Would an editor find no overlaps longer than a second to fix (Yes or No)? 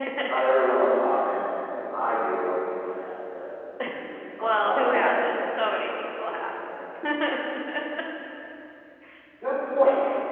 No